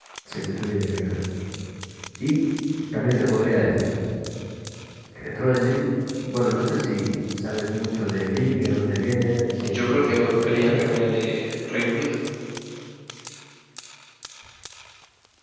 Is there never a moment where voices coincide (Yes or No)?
No